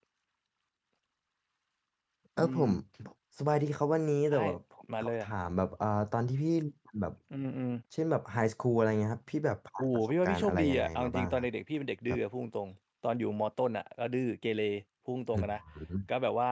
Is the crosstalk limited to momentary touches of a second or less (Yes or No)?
No